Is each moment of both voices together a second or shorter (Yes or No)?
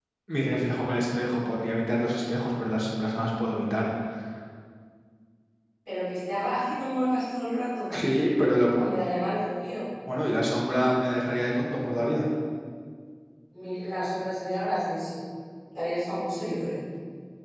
Yes